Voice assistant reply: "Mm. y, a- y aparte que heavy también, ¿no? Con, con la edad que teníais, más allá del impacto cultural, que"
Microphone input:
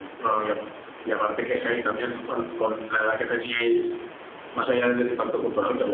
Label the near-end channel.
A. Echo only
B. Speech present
A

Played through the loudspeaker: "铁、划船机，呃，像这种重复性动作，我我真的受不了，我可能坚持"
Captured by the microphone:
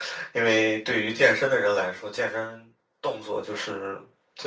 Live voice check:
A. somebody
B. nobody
A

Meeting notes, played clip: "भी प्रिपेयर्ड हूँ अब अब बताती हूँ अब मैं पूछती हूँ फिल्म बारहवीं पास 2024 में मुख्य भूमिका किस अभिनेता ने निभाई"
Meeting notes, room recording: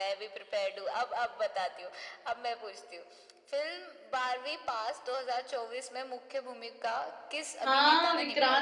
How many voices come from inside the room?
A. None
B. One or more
B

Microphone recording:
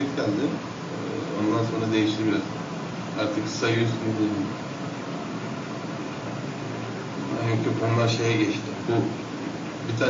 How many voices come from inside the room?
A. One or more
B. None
B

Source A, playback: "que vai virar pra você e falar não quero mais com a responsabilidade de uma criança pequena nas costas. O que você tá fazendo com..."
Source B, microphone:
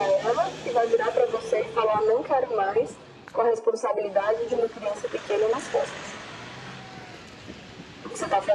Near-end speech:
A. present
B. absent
B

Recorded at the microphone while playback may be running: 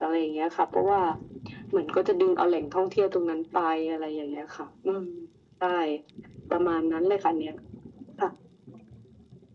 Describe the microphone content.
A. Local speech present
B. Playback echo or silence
B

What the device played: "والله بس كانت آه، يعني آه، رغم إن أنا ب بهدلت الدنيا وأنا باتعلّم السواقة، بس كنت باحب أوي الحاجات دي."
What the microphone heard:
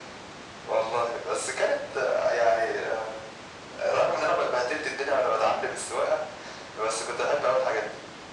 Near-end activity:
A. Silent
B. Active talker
A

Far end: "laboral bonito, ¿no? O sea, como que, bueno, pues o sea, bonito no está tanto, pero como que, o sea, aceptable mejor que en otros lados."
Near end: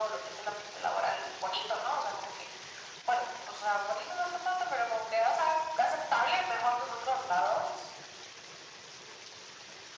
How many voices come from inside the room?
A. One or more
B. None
B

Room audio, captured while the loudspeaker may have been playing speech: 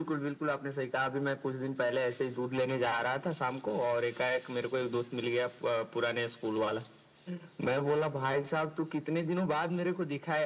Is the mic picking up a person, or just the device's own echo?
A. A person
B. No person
B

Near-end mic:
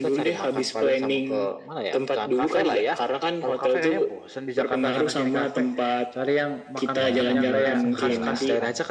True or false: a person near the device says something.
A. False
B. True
B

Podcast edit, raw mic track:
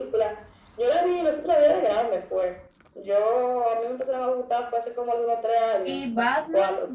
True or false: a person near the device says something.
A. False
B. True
B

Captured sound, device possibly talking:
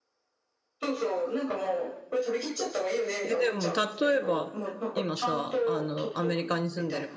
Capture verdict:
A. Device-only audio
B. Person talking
B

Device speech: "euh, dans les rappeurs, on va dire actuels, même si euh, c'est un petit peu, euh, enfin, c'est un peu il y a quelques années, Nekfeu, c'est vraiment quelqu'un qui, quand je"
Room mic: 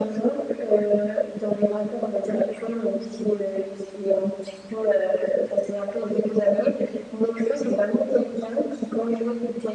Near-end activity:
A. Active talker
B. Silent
B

